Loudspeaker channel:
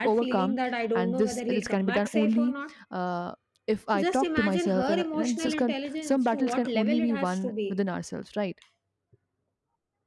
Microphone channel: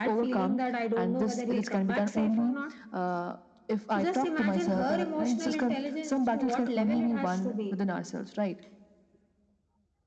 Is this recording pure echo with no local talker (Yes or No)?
Yes